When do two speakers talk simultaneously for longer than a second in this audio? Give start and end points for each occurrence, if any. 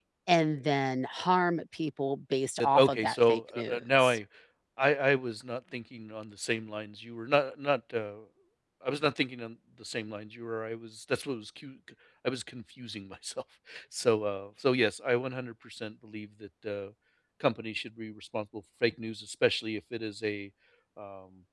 2.6-4.2

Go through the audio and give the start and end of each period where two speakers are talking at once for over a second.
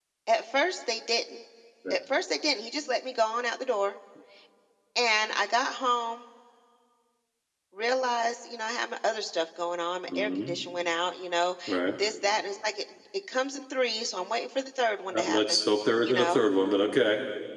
none

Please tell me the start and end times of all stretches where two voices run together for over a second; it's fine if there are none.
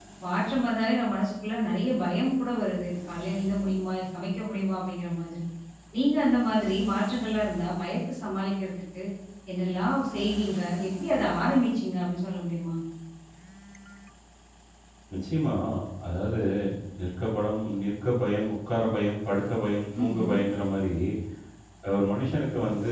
none

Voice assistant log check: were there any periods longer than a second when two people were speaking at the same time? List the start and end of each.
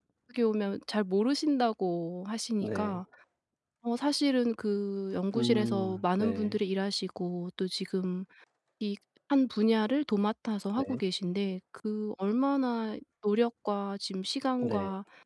5.3-6.6

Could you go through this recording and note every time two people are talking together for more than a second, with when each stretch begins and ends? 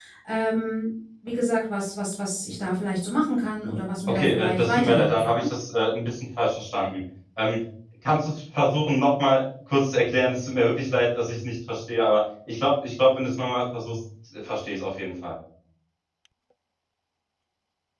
4.1-5.5

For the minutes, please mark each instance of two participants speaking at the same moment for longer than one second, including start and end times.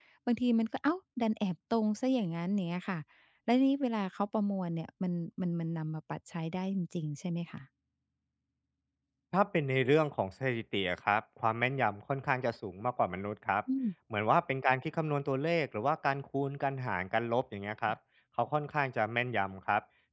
none

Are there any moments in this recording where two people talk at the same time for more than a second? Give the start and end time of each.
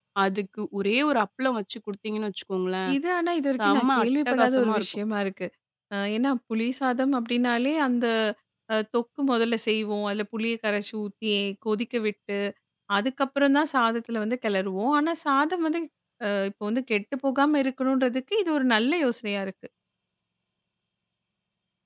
3.6-4.9

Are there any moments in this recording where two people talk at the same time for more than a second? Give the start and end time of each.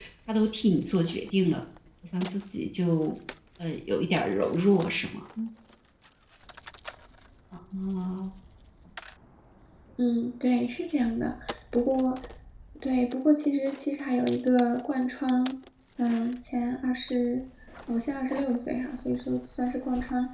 none

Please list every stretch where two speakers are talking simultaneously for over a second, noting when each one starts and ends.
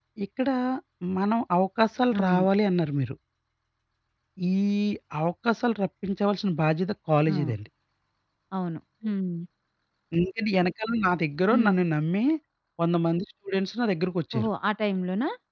none

